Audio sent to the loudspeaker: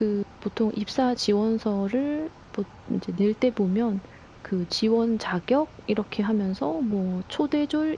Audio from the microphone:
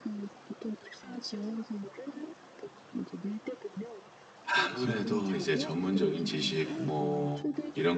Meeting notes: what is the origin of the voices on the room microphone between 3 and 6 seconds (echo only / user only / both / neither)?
both